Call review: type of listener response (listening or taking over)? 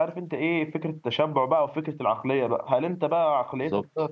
listening